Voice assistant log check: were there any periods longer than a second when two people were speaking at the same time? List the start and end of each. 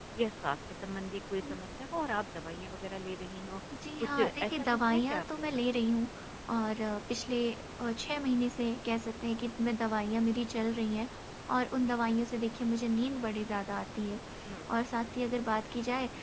4.1-5.6

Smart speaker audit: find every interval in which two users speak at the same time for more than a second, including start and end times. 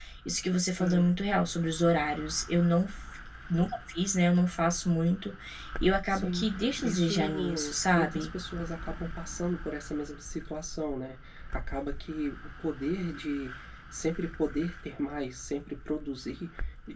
6.8-8.2

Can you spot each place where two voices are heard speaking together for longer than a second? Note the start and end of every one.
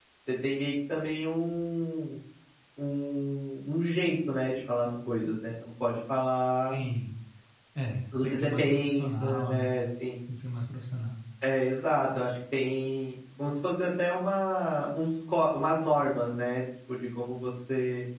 8.1-9.7

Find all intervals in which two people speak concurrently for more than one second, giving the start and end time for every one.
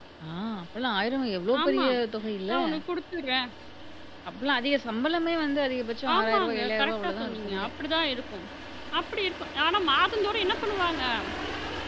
6.2-7.7

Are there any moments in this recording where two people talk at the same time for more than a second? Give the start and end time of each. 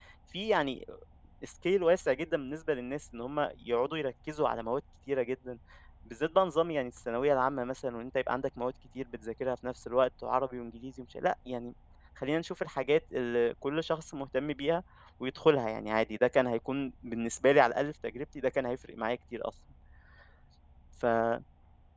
none

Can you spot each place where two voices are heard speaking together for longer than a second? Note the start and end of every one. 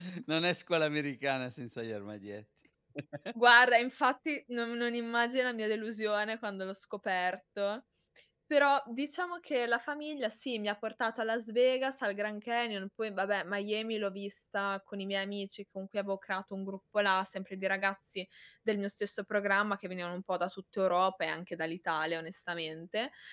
none

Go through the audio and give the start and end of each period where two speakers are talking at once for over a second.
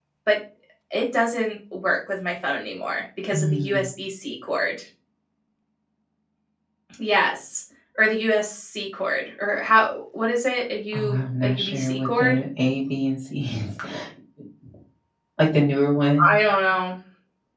10.9-12.4

